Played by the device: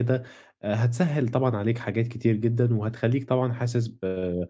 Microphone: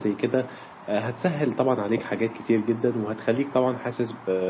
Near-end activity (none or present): none